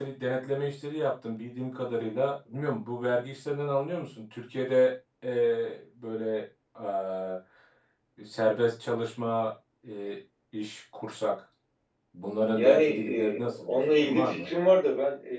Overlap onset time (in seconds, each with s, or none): 12.5 s